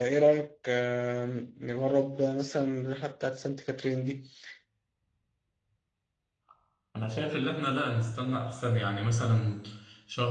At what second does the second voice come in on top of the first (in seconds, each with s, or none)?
none